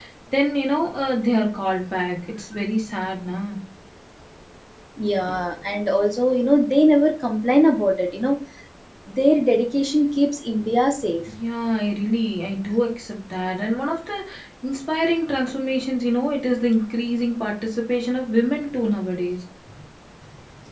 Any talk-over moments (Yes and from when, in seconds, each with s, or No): No